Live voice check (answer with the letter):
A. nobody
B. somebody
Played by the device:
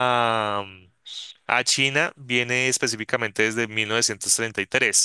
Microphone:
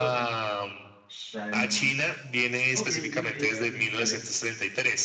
B